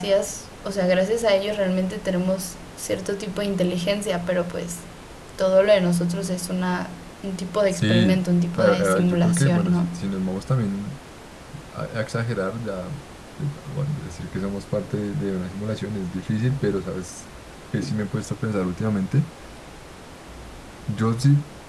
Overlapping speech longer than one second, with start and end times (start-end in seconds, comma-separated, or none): 8.5-9.9